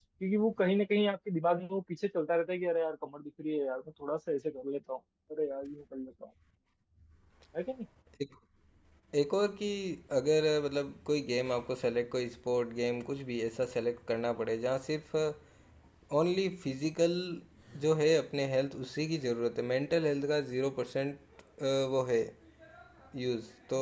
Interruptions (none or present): none